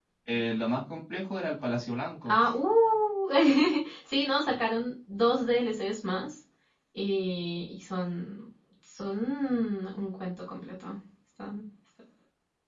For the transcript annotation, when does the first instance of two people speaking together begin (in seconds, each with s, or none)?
none